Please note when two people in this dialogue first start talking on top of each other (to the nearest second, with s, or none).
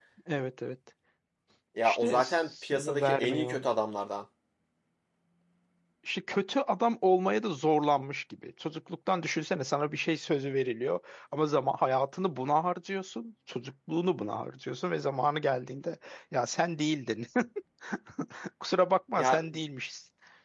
2 s